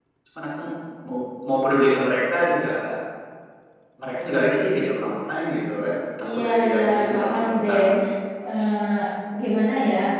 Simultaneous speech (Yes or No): Yes